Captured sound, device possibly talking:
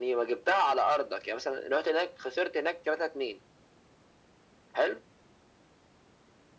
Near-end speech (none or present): none